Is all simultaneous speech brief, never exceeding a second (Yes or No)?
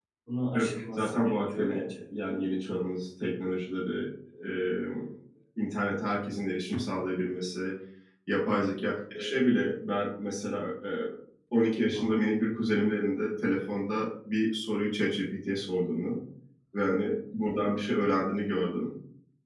No